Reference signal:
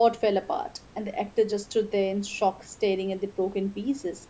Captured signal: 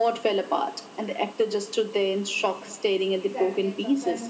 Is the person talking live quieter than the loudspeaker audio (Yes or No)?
Yes